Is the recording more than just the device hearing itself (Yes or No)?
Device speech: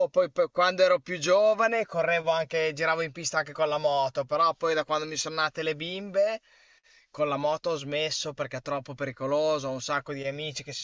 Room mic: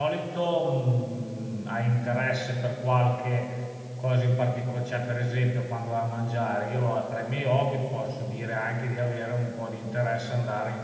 Yes